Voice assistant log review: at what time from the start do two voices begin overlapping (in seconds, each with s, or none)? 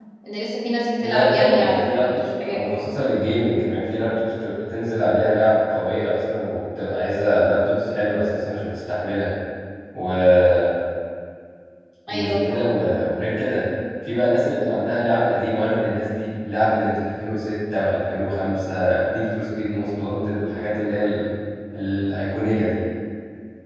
1.0 s